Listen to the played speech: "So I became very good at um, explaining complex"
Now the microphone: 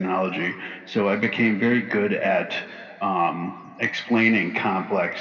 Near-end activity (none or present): none